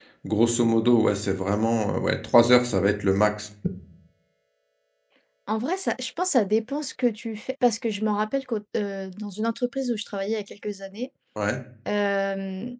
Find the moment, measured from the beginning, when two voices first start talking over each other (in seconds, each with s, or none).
none